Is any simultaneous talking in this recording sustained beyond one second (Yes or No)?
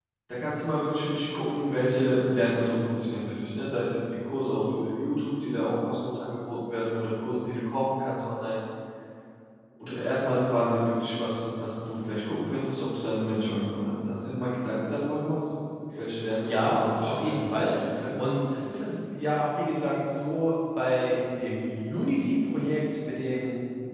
Yes